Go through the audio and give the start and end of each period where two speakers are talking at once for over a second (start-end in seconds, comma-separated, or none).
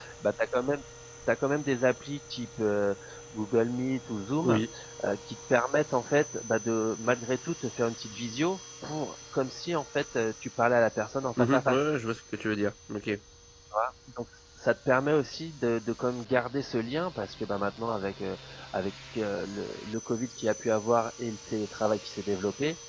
none